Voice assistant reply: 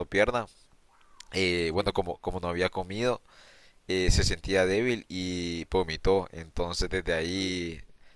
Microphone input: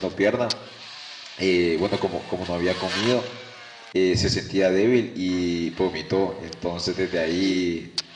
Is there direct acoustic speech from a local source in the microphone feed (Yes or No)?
No